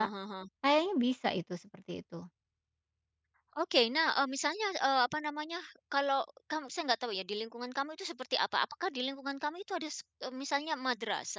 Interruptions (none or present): none